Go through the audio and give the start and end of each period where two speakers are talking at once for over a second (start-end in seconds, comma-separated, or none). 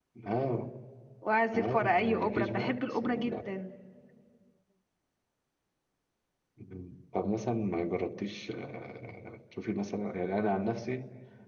1.6-3.4